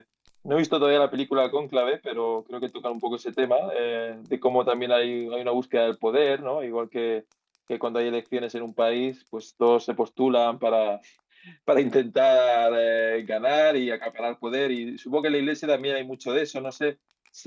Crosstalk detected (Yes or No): No